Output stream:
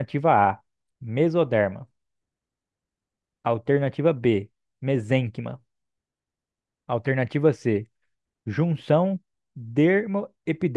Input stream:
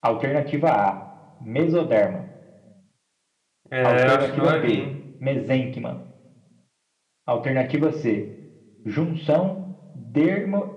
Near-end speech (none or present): present